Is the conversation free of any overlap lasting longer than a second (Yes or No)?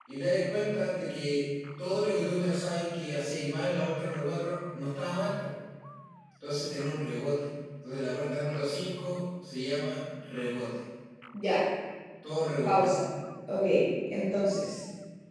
Yes